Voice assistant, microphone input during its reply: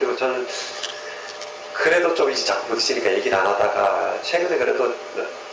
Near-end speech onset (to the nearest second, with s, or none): none